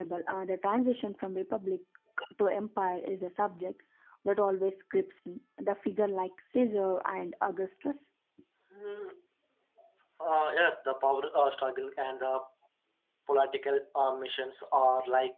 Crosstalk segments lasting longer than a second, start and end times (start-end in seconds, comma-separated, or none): none